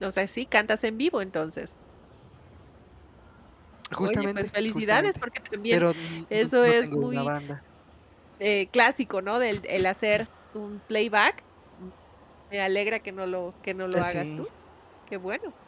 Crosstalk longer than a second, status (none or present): present